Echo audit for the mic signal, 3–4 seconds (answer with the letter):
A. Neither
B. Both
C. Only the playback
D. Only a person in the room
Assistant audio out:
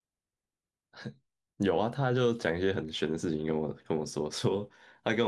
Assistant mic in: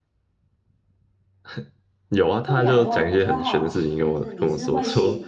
B